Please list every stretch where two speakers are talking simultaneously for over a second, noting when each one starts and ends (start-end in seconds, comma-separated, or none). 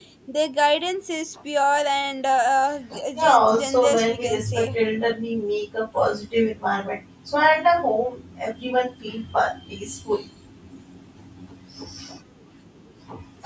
3.2-4.7